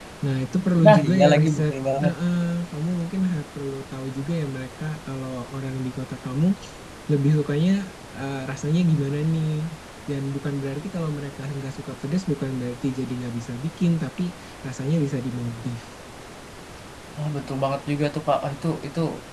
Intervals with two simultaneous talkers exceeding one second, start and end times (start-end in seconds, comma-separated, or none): 0.8-2.1